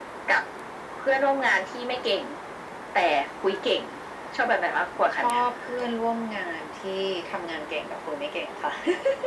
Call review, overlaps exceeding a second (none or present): none